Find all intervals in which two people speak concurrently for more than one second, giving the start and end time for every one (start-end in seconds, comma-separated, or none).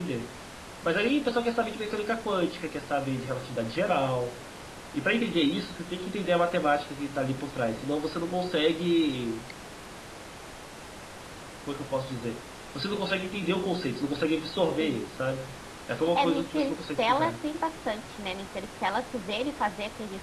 16.1-17.4